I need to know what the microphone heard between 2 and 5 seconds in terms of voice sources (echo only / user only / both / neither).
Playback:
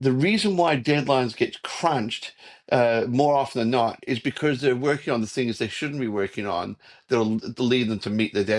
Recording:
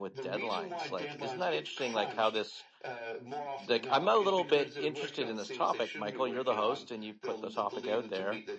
both